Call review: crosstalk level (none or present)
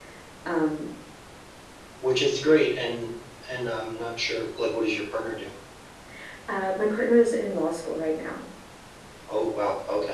none